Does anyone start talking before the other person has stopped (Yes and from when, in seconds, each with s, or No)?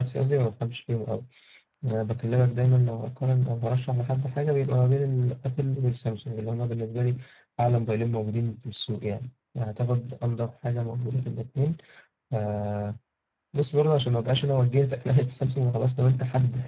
No